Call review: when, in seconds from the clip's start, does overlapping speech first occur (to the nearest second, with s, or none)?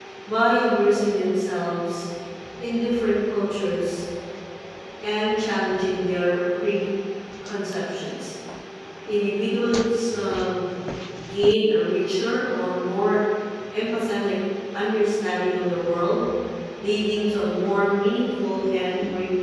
none